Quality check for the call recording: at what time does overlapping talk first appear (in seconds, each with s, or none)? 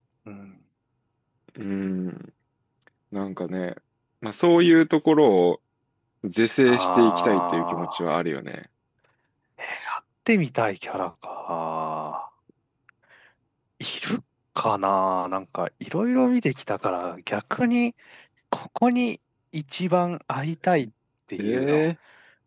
6.7 s